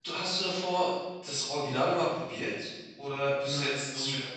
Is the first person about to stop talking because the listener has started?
Yes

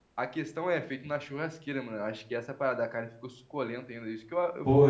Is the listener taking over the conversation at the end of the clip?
Yes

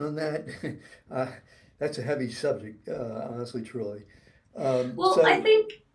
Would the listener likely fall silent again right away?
No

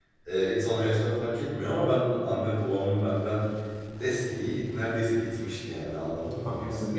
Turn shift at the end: Yes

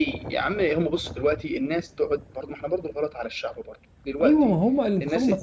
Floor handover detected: Yes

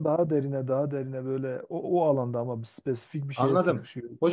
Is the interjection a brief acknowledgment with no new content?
No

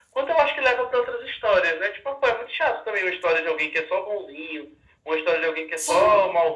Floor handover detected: No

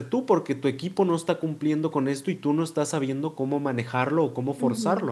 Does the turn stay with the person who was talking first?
No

